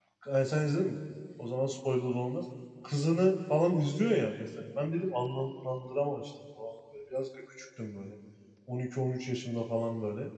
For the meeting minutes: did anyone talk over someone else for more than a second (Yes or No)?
No